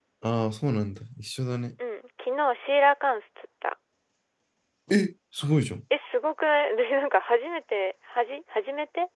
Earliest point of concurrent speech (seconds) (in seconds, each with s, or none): none